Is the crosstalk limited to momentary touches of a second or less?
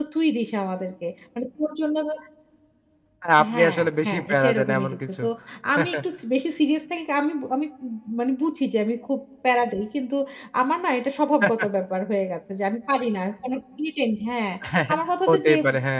No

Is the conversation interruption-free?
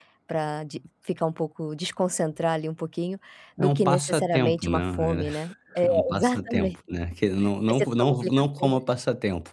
No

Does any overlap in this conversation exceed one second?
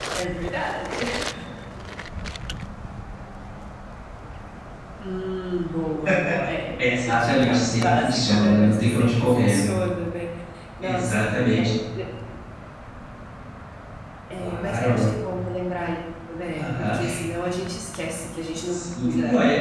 Yes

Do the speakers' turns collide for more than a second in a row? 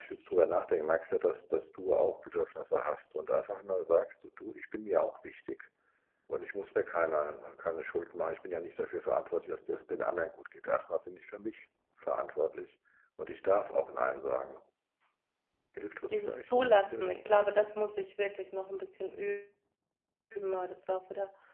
Yes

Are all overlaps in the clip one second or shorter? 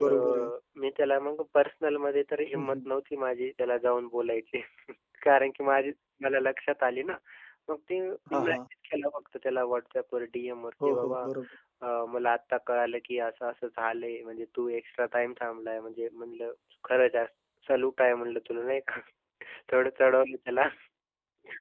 Yes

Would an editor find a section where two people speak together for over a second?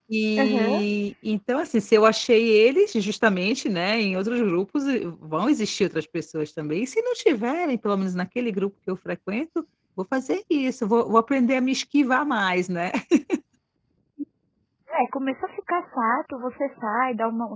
No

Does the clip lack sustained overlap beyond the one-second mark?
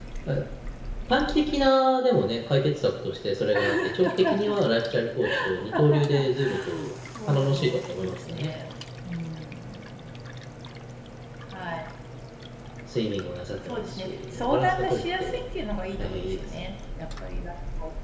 No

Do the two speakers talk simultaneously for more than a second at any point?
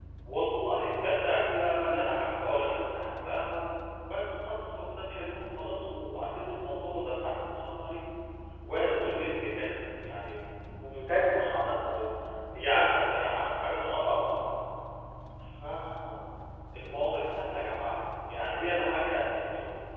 No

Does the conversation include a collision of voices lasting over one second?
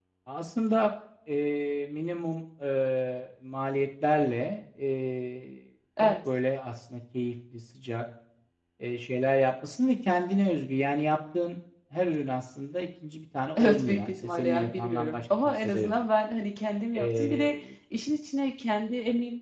Yes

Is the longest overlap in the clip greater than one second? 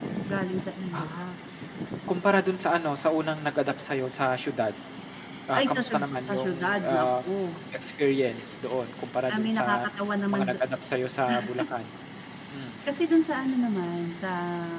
Yes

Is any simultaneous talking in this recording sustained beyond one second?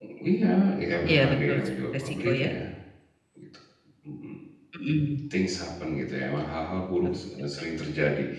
Yes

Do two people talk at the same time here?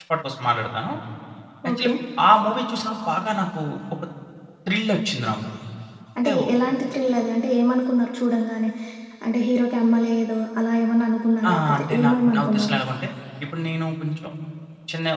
Yes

